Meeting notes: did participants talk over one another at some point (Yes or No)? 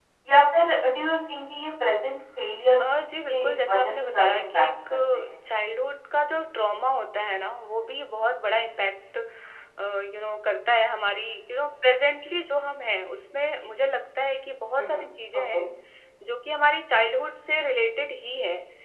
Yes